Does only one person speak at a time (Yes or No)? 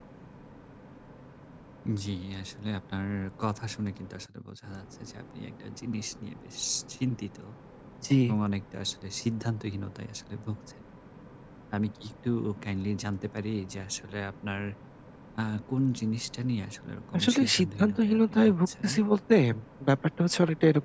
No